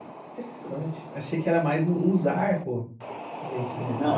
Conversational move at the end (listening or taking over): taking over